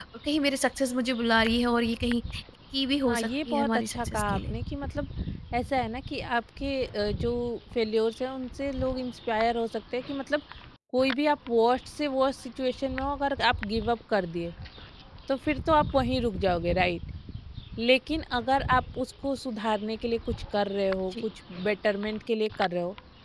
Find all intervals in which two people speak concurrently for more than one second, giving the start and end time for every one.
3.1-4.5

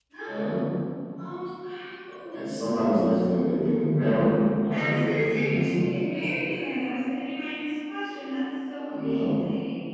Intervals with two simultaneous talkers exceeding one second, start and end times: 4.7-5.9

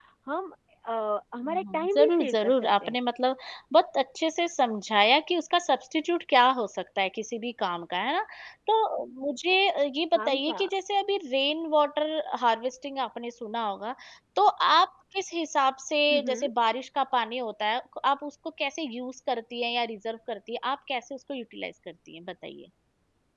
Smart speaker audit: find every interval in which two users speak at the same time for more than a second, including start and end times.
1.5-3.0

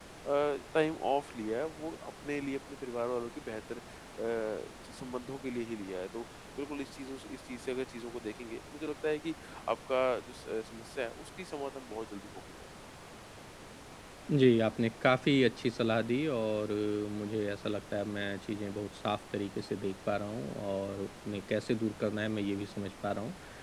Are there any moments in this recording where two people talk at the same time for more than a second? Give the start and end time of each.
none

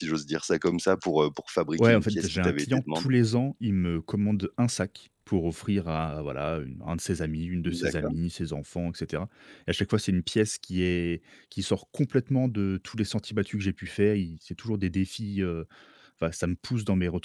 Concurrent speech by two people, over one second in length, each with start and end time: 1.8-3.1

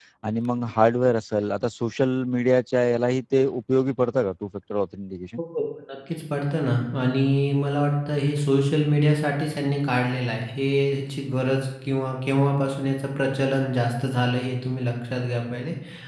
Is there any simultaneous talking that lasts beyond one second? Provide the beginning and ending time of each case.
none

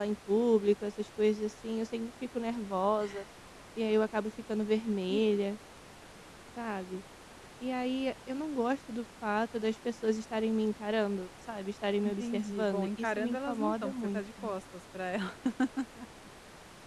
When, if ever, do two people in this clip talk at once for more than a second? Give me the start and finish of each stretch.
12.0-14.6

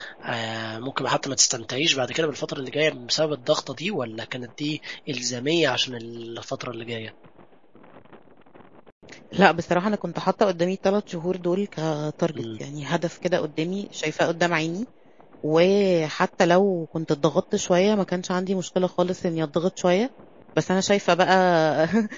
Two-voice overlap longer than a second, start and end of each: none

